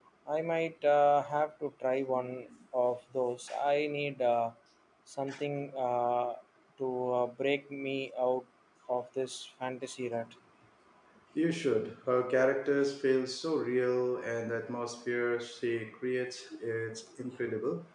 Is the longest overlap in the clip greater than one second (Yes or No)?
No